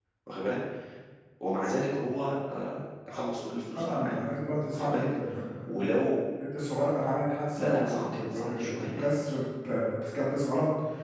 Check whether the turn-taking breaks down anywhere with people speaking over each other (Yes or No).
Yes